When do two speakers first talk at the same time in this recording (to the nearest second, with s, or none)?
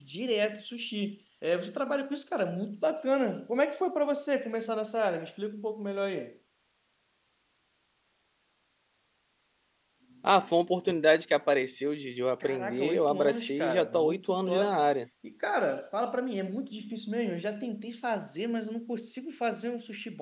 12 s